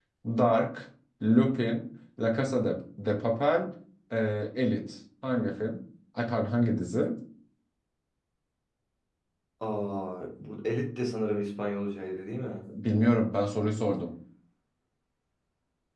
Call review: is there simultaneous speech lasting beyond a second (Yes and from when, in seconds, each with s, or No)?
No